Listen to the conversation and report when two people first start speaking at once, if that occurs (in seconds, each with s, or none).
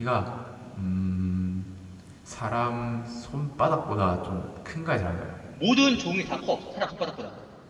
none